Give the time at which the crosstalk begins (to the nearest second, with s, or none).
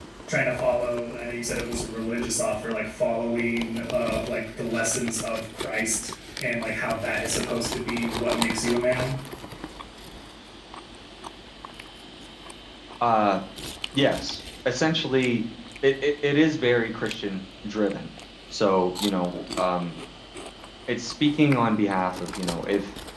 none